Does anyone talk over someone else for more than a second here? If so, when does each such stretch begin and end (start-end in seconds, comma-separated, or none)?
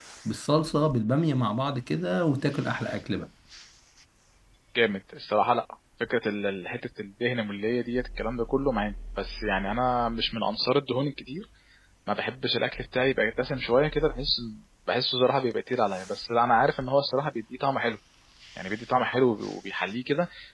none